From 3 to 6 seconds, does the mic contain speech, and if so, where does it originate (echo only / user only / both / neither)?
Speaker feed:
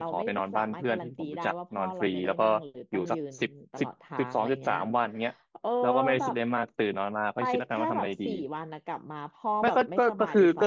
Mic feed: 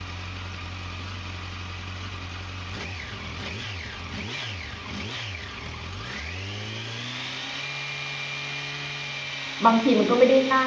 neither